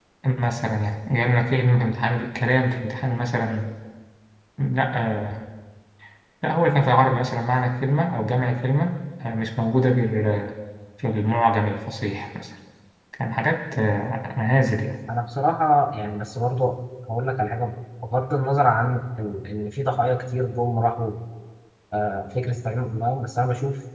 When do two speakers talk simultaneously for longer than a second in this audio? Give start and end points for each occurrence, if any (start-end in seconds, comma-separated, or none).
none